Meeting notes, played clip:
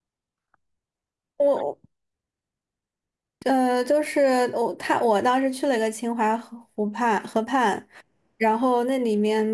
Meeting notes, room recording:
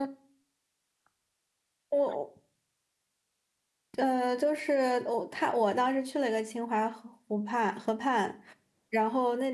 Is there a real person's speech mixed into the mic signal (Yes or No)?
No